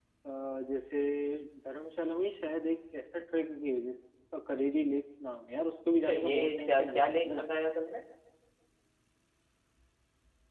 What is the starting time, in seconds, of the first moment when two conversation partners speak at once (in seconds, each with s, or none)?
6.1 s